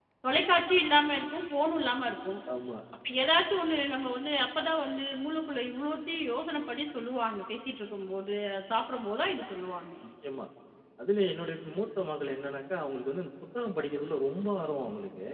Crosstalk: none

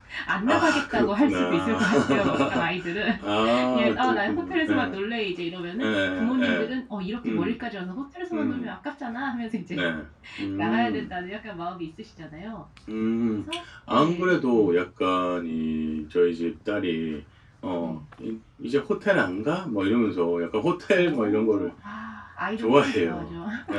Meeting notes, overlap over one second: present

